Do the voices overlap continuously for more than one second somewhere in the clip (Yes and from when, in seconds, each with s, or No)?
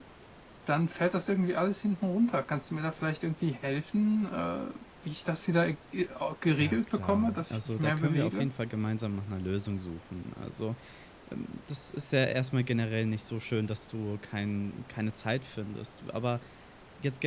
Yes, from 6.6 s